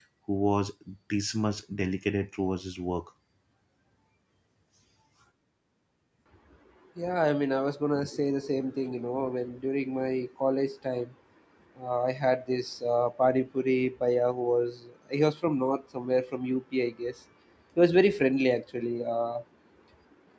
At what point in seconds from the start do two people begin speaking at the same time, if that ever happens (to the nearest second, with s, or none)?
none